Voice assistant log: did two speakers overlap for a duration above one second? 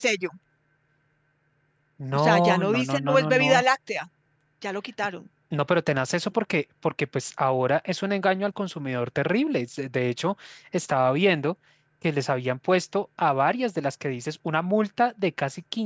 Yes, from 2.1 s

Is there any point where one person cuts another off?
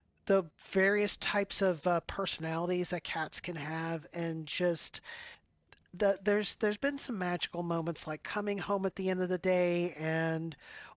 No

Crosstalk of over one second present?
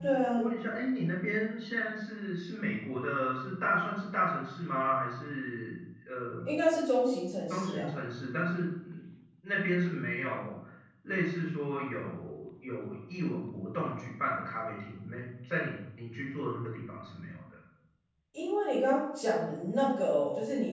No

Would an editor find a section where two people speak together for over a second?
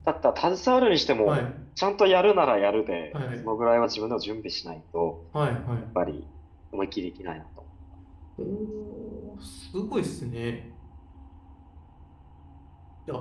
No

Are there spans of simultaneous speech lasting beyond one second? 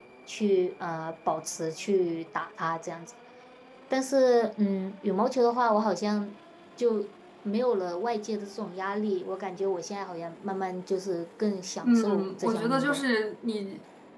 Yes, from 11.8 s

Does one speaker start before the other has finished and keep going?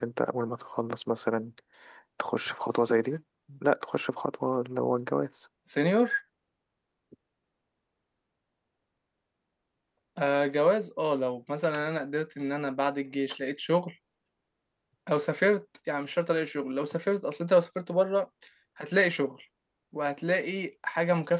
No

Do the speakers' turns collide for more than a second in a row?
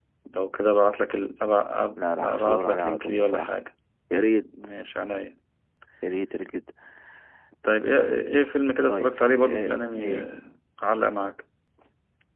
Yes, from 2.2 s

